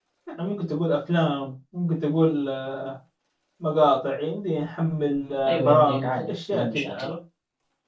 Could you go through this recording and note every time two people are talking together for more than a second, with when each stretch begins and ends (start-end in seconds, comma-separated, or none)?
5.5-7.1